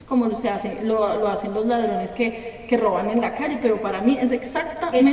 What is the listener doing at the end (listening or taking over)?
taking over